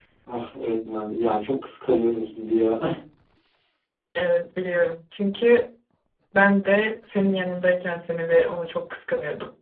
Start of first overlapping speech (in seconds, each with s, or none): none